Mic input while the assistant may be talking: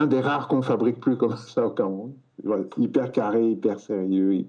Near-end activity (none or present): none